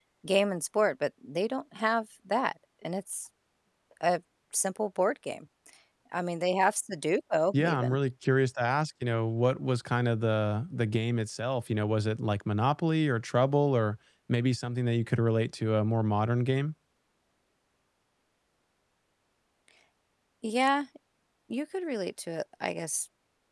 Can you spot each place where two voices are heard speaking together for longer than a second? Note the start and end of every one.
none

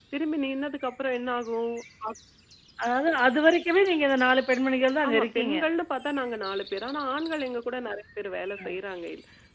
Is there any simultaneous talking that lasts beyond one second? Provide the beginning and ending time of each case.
none

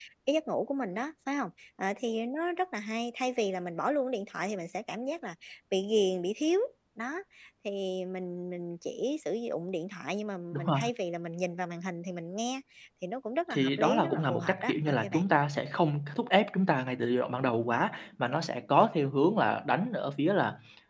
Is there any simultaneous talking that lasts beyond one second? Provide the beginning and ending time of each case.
13.5-15.2

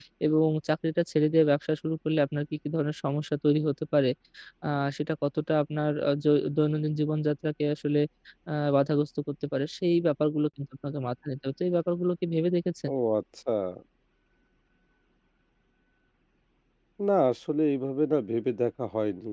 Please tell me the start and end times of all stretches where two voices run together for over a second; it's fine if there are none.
none

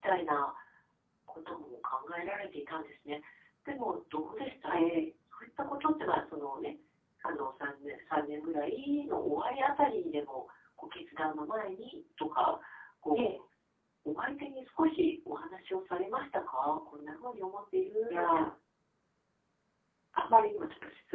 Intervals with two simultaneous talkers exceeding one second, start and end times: none

